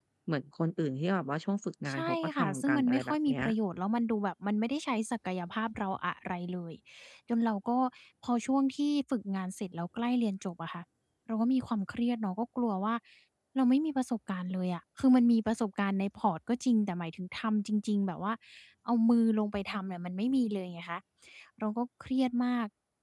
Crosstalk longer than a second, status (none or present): present